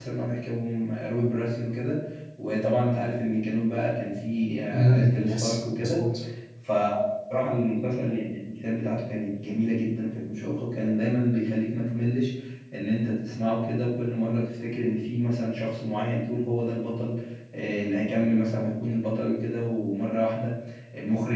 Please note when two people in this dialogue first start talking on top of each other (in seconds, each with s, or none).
4.7 s